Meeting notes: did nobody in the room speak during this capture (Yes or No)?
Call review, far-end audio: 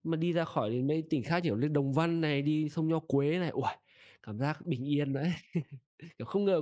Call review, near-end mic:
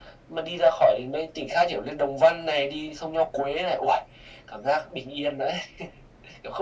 Yes